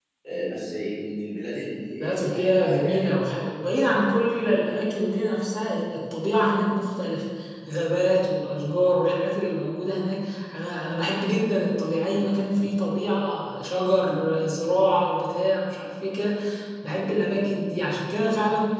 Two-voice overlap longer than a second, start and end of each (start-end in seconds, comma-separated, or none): 2.0-3.2